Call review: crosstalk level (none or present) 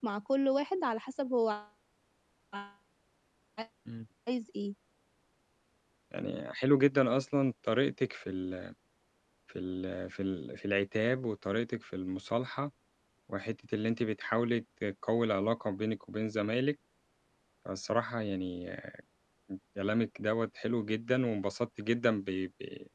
none